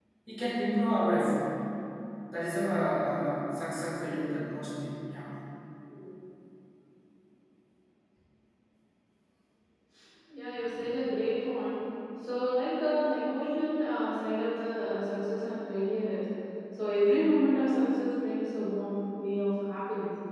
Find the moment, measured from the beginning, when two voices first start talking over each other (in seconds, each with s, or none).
none